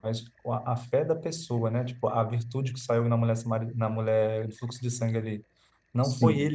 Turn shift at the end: No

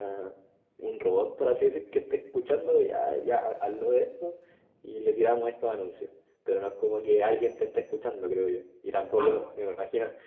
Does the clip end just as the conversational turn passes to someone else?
No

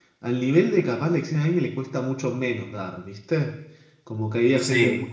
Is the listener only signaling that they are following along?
Yes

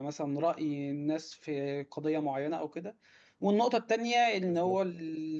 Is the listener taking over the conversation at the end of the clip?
No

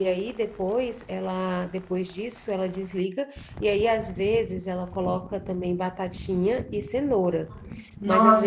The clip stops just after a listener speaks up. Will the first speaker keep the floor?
No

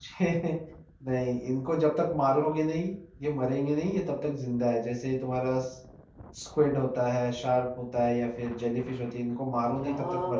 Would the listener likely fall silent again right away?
No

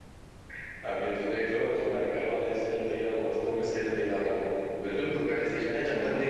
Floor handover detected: No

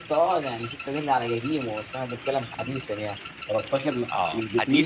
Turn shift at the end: Yes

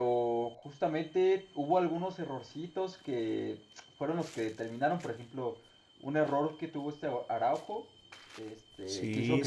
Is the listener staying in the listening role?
Yes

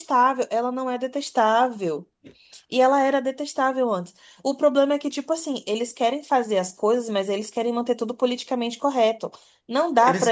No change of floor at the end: No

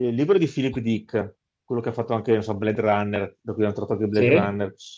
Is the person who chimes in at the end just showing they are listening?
Yes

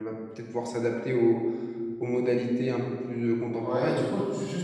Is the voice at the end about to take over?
Yes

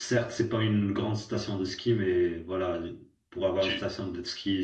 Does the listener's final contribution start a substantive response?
No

